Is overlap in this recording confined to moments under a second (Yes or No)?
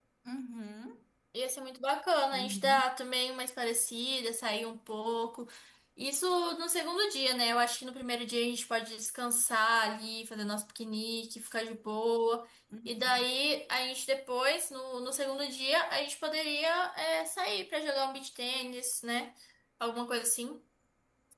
Yes